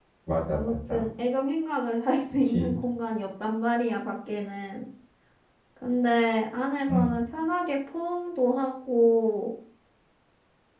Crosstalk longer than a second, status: none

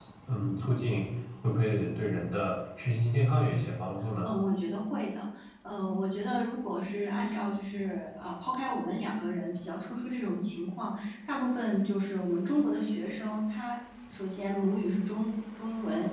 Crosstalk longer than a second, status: none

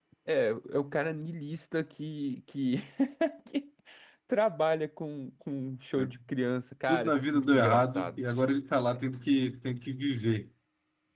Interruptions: present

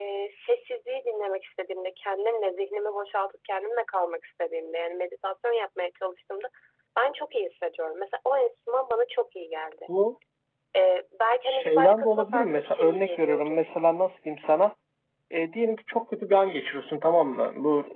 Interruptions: present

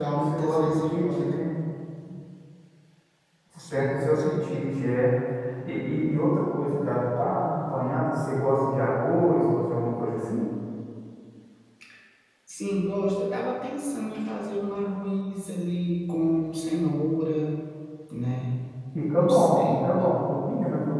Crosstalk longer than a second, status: present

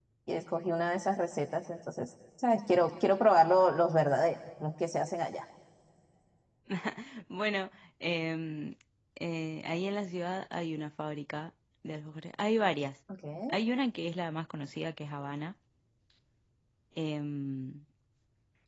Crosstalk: none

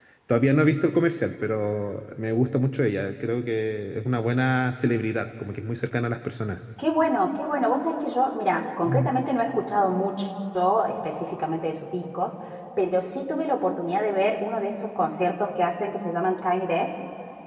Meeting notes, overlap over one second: none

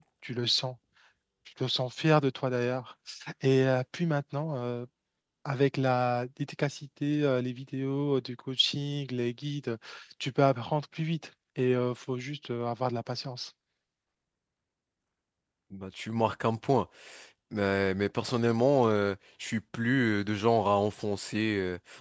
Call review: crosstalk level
none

